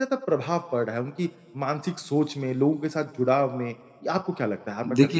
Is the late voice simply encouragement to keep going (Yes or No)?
No